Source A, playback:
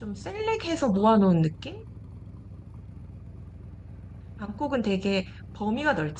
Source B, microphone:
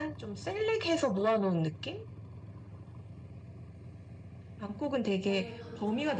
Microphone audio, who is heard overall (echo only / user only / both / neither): both